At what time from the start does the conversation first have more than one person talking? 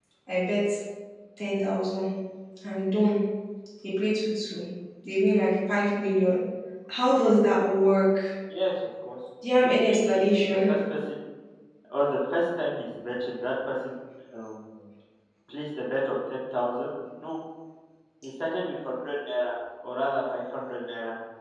9.4 s

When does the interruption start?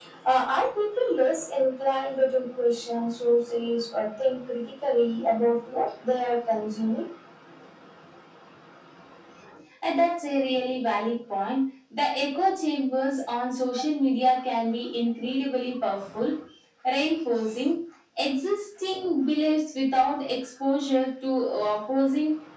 none

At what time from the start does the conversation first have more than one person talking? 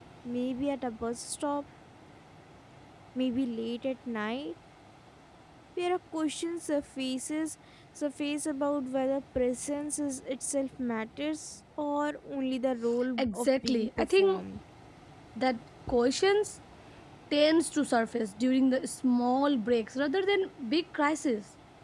13.2 s

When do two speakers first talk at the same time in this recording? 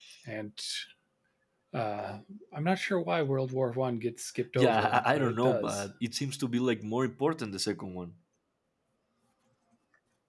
4.6 s

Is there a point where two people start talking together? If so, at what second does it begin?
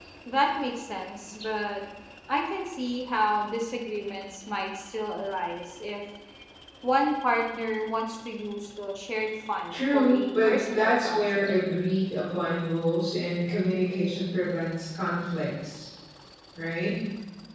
9.7 s

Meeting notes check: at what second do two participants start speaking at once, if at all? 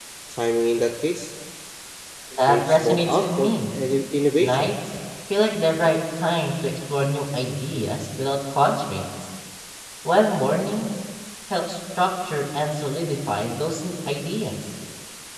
2.4 s

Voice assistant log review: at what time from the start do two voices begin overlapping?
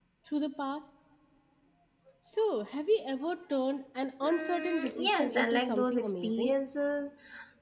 4.2 s

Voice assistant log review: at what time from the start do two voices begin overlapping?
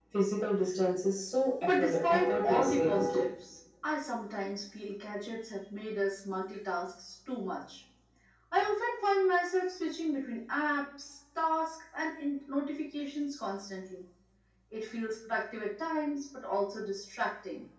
1.6 s

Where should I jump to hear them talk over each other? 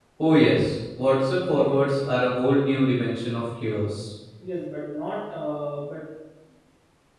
none

